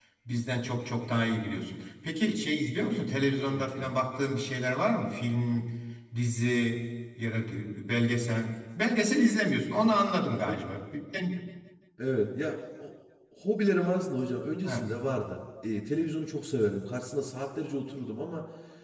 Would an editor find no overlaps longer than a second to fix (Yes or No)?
Yes